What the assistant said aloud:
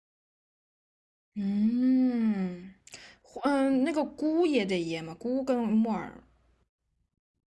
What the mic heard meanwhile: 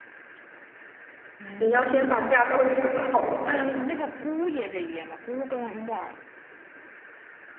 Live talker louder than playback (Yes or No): Yes